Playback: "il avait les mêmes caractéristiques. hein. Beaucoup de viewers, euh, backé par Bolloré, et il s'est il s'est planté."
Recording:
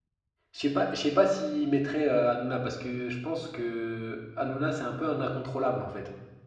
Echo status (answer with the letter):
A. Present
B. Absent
B